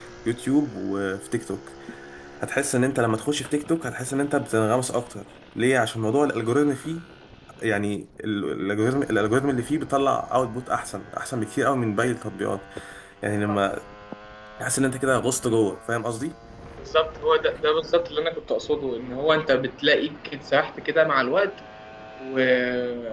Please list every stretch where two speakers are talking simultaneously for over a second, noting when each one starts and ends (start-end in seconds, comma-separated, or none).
none